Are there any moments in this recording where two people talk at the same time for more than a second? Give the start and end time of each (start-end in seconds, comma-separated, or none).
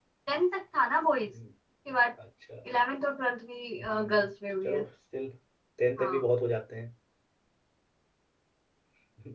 none